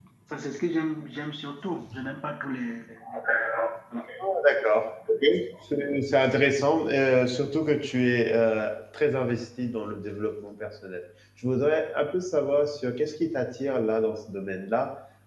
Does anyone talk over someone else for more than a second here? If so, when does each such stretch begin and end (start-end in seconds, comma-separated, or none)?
none